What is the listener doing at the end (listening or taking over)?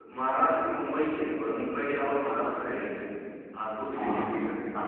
taking over